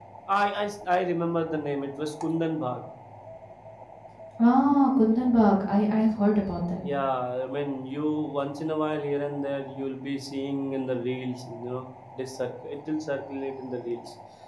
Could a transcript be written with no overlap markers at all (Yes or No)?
Yes